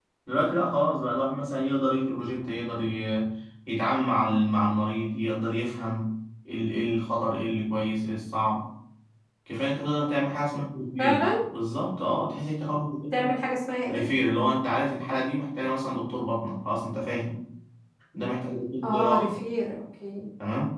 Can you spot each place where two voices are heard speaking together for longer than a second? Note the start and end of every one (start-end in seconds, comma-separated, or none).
none